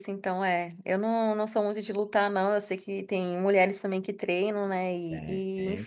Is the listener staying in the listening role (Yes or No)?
Yes